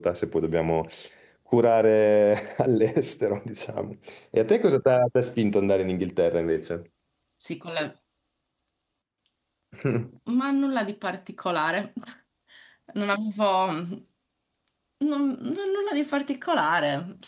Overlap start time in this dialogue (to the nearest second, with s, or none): none